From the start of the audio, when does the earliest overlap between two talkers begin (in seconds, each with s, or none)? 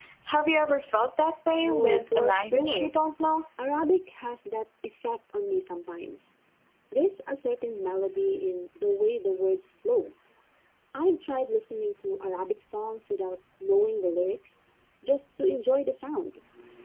1.6 s